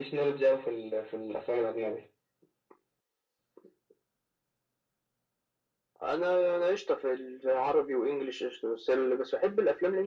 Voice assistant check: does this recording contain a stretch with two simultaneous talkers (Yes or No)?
No